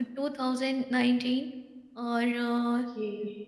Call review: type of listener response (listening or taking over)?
listening